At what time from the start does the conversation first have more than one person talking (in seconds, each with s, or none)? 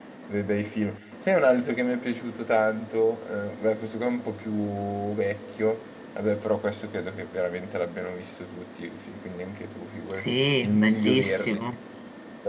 10.1 s